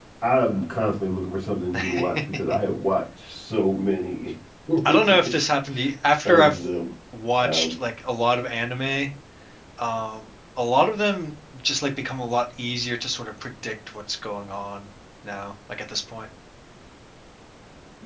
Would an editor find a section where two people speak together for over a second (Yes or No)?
No